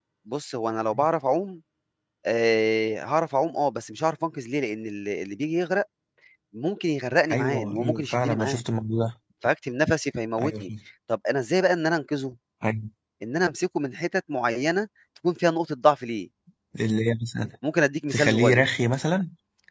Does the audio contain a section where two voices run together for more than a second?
Yes, from 7.3 s

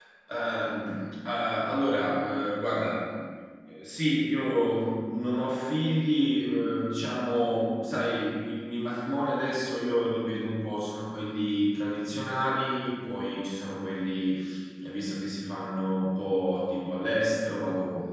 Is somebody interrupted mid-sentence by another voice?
No

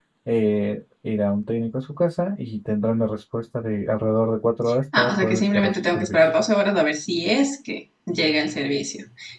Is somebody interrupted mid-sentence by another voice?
Yes, from 4.9 s

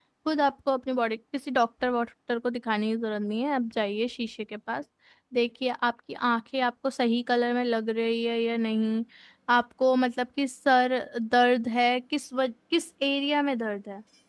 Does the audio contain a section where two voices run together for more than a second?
No

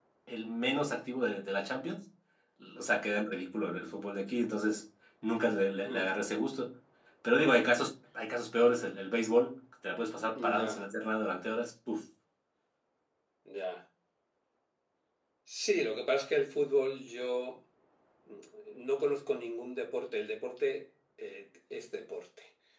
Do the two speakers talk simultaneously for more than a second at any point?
No

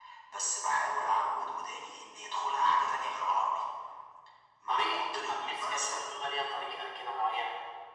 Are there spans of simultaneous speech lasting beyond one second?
Yes, from 4.7 s

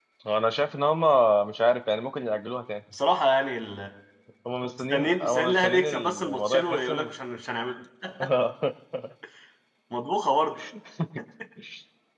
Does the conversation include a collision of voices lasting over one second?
Yes, from 4.8 s

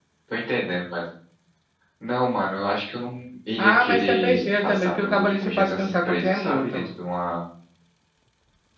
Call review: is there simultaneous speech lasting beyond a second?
Yes, from 3.5 s

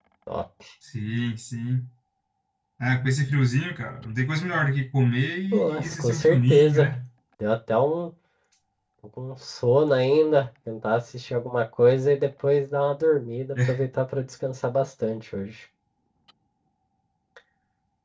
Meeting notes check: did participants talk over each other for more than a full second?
Yes, from 5.5 s

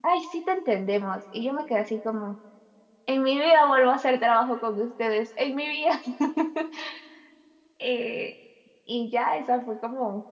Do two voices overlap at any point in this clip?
No

